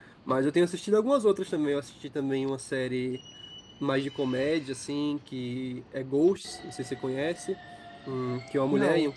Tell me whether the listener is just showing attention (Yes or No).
Yes